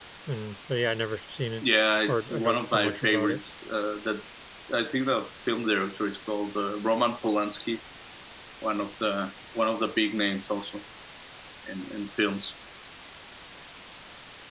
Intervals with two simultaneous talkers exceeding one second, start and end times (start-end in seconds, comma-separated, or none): 2.1-3.4